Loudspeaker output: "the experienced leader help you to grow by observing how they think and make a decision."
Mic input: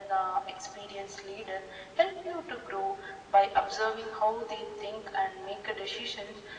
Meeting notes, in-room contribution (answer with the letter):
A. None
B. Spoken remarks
A